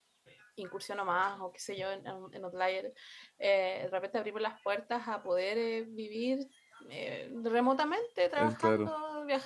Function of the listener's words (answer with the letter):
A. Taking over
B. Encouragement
B